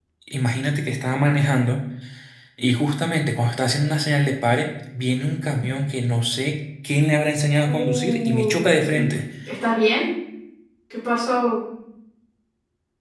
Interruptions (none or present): present